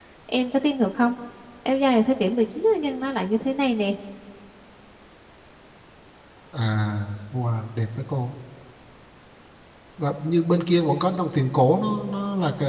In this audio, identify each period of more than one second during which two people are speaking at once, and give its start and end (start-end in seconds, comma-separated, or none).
none